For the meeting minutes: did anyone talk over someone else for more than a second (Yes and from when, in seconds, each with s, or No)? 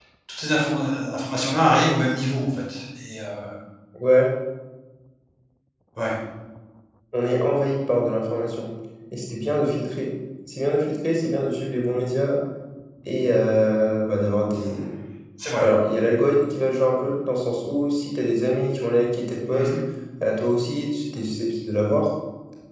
No